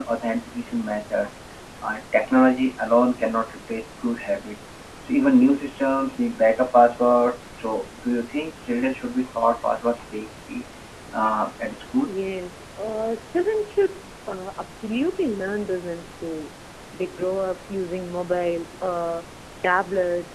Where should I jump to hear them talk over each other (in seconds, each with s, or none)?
none